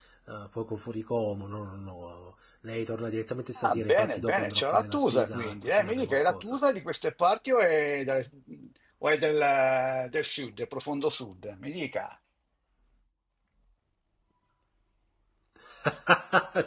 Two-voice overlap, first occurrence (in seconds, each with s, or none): 3.6 s